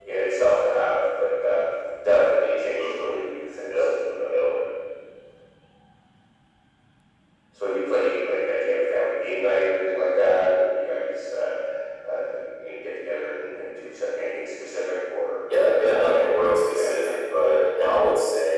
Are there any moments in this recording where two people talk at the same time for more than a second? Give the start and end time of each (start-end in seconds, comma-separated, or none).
15.6-17.2